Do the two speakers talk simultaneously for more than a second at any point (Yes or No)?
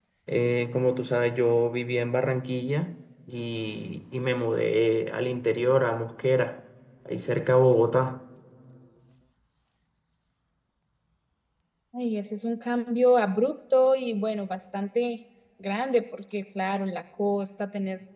No